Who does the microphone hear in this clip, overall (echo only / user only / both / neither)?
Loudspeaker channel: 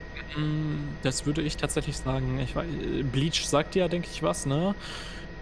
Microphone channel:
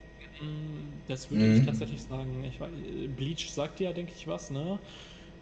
both